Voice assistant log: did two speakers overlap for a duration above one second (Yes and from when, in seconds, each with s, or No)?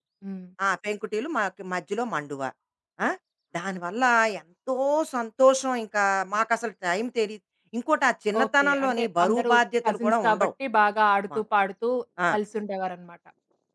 Yes, from 8.3 s